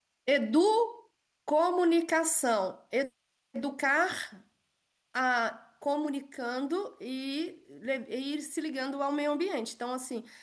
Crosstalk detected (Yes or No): No